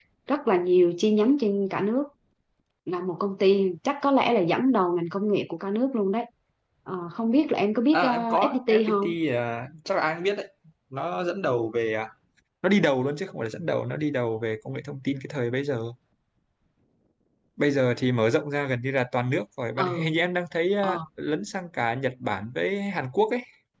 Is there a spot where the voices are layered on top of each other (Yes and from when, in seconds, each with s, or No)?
Yes, from 7.9 s